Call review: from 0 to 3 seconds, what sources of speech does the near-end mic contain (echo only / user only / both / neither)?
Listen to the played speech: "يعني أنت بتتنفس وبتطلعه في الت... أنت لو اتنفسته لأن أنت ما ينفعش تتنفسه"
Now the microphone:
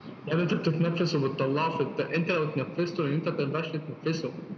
echo only